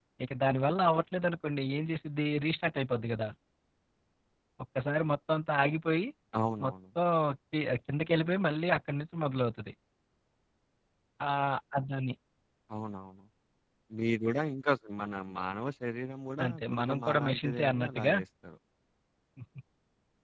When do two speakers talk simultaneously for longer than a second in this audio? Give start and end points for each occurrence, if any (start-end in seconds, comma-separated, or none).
16.4-18.1